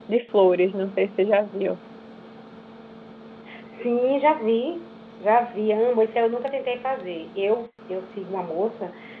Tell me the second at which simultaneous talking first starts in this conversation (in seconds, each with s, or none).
none